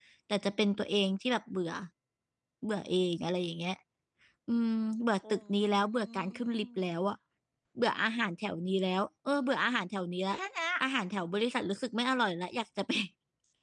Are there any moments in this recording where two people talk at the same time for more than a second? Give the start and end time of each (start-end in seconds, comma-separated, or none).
5.3-6.8